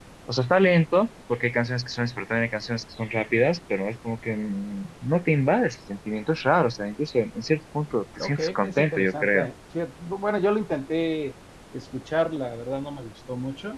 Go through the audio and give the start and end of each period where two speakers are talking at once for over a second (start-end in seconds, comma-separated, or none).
8.2-9.5